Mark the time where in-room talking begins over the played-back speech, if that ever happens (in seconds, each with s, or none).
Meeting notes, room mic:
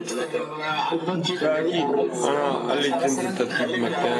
1.2 s